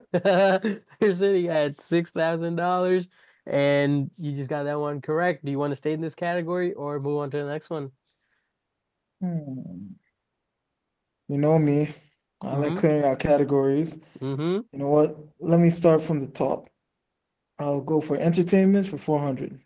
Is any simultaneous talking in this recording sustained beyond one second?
No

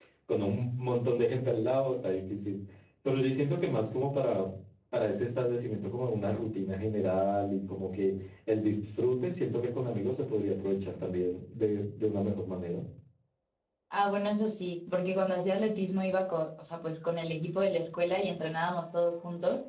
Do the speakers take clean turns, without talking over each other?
Yes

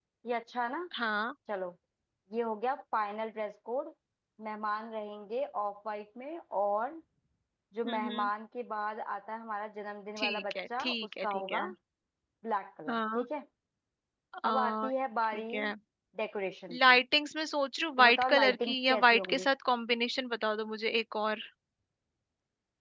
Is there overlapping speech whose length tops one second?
Yes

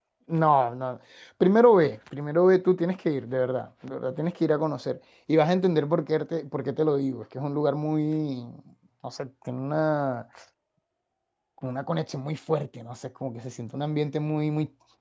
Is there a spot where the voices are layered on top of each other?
No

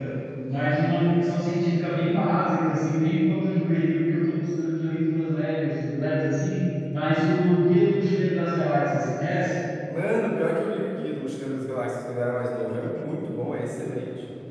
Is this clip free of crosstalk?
Yes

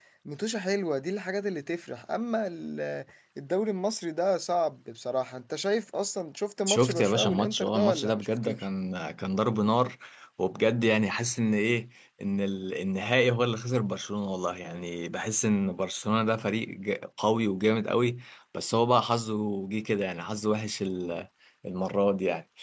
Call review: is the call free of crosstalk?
No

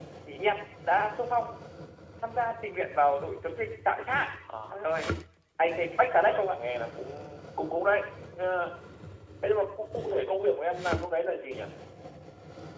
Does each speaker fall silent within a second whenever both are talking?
Yes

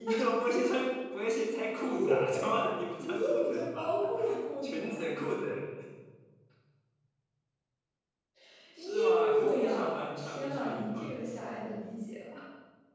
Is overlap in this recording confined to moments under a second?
No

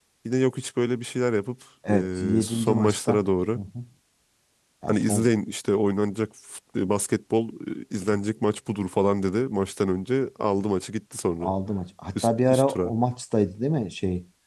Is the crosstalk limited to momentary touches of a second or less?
No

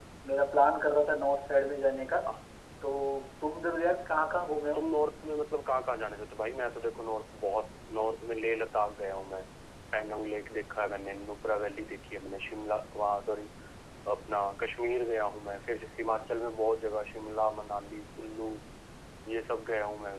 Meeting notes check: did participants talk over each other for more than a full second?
No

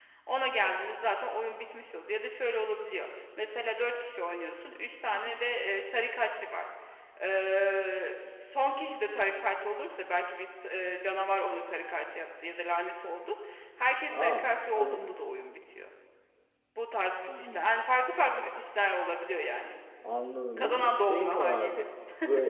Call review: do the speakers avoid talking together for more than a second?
No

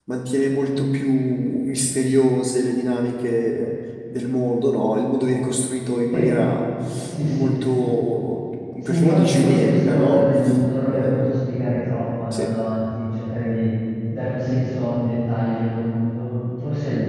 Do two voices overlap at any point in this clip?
Yes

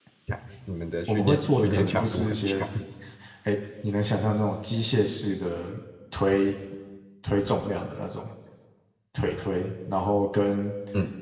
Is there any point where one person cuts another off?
Yes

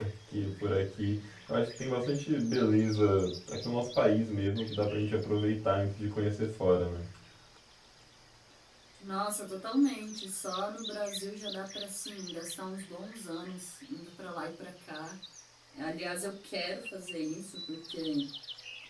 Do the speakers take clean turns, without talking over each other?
Yes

